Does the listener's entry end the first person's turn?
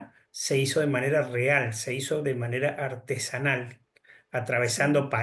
No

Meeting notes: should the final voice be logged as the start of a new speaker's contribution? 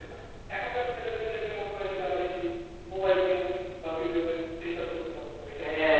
Yes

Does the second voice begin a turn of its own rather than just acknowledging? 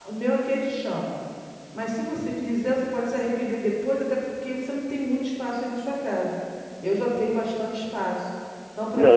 Yes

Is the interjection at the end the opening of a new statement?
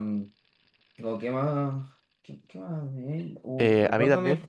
Yes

